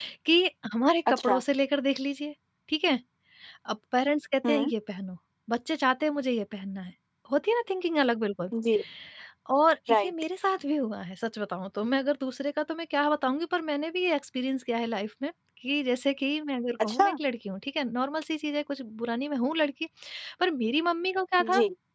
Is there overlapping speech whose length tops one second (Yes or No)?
No